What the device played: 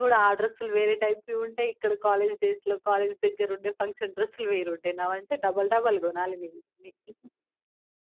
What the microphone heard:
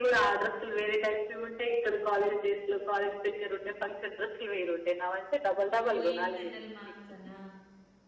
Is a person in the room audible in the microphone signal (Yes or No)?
Yes